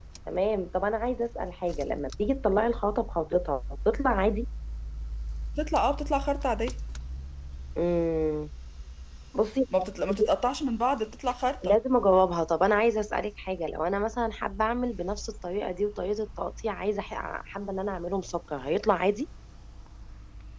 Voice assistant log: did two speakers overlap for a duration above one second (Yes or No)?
No